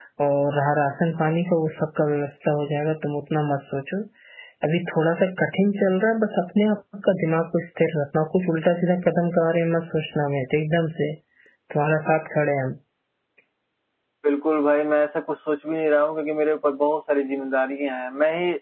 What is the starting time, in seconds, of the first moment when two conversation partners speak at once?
none

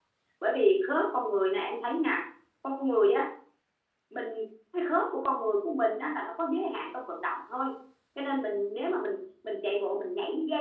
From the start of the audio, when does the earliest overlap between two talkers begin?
none

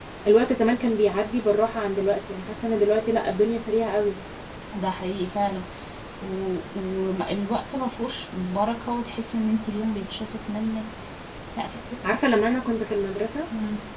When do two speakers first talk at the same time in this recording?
none

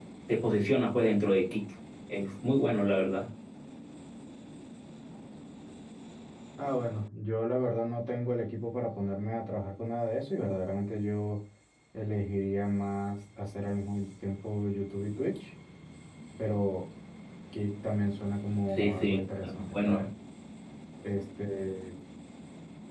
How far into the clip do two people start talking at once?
18.8 s

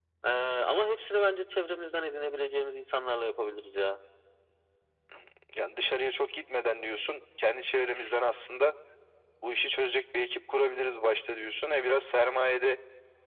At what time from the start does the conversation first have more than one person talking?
none

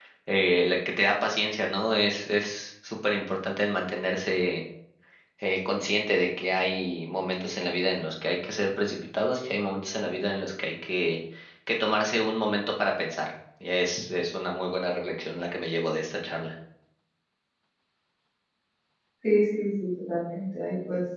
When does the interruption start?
none

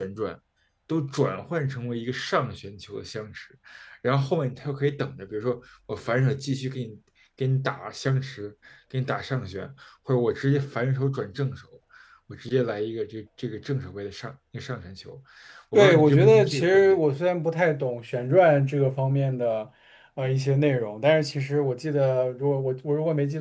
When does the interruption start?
15.7 s

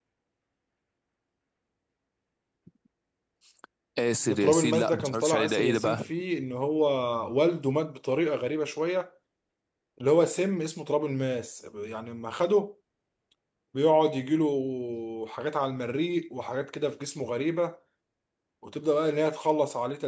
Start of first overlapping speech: 4.3 s

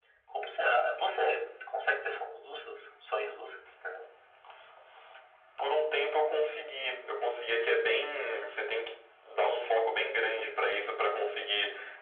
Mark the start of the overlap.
none

